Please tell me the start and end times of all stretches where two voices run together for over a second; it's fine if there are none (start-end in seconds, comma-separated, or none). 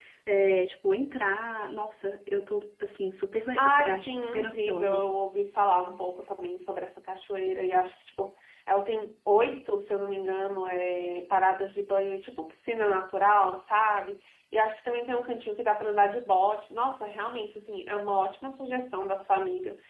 3.6-5.0